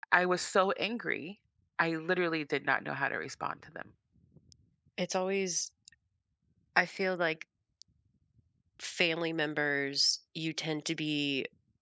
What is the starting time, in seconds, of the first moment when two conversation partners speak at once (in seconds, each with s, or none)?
none